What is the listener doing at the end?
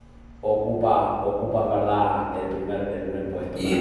taking over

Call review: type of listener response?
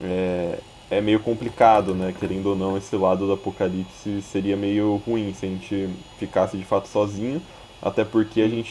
listening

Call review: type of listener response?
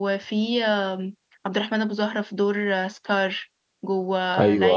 listening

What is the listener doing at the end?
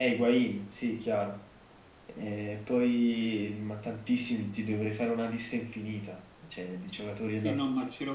taking over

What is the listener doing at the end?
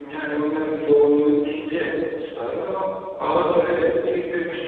listening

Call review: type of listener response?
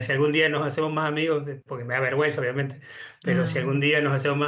listening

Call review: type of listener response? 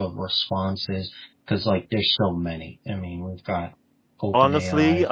taking over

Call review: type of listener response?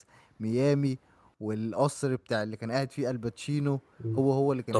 taking over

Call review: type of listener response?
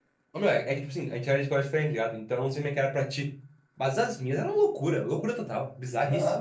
taking over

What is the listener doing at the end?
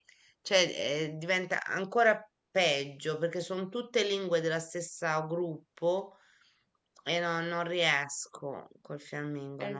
taking over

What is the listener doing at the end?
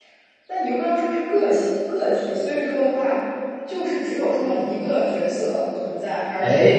listening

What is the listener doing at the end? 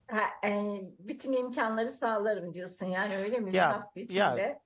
taking over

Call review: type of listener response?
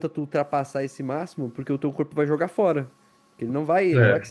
listening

